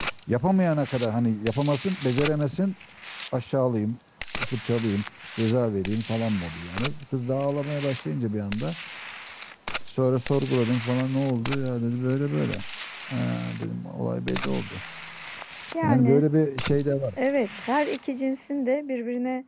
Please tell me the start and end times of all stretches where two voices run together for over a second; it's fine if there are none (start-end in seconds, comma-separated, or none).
none